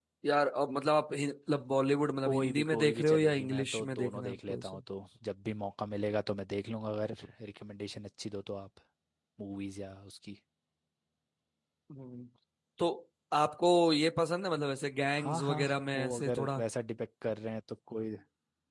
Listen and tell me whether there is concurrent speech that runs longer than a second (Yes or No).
Yes